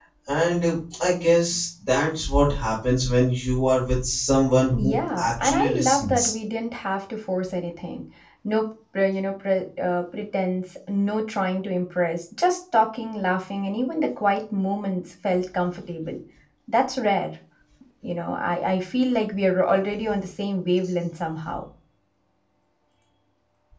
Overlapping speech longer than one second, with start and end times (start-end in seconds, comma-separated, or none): 4.7-6.3